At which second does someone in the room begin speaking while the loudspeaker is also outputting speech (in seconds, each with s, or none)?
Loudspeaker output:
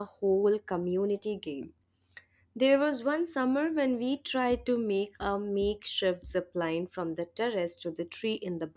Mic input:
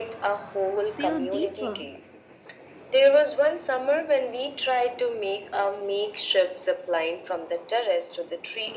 0.8 s